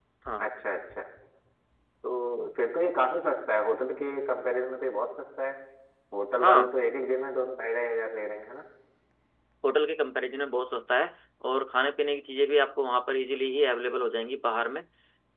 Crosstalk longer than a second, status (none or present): none